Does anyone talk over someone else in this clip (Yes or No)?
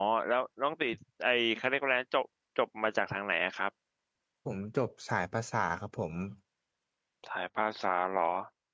No